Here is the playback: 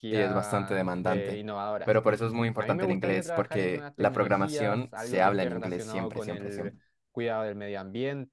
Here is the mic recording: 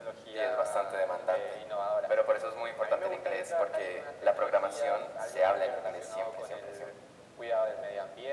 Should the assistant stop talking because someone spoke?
No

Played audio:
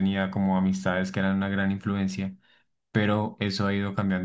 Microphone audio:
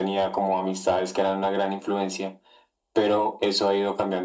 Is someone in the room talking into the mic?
No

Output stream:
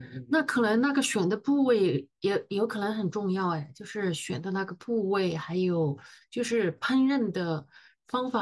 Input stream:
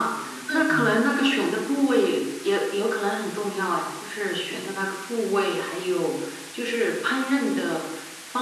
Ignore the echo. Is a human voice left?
Yes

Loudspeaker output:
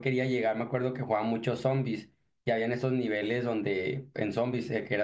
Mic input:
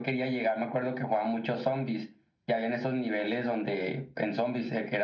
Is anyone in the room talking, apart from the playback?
No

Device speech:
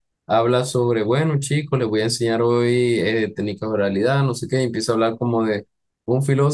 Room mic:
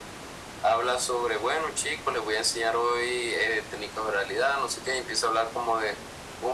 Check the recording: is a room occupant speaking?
No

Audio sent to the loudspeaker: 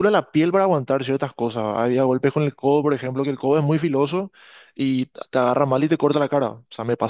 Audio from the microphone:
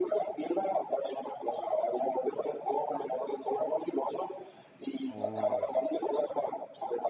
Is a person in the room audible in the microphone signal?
Yes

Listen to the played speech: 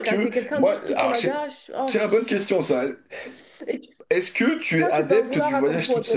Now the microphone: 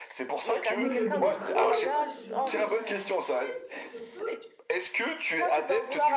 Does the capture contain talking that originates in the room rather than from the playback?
Yes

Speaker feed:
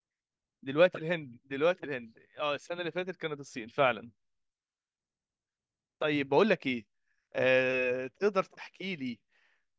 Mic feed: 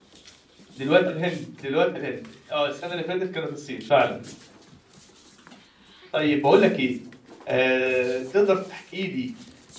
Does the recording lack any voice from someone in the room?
Yes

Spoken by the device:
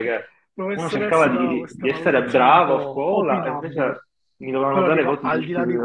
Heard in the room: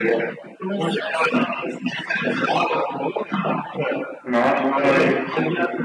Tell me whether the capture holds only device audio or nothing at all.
No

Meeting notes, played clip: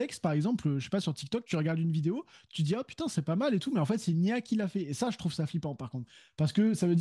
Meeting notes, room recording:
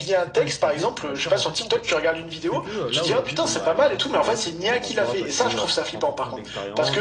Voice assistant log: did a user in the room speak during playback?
Yes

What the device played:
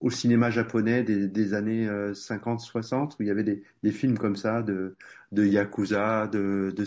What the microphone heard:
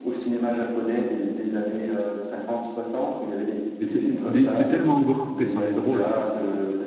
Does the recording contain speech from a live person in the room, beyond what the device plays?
Yes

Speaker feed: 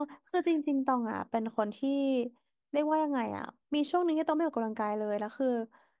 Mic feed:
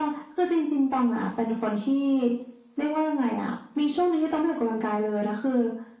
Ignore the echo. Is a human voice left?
No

